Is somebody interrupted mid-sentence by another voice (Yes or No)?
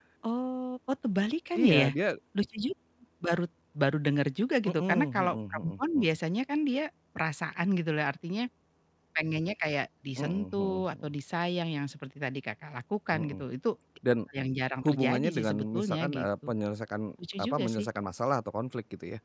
Yes